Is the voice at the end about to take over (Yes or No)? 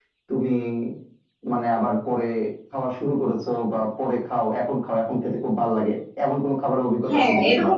Yes